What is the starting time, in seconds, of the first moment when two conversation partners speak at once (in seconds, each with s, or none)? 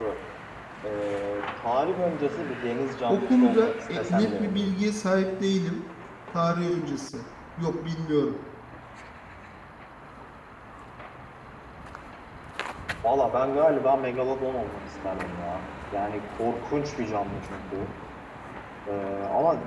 3.1 s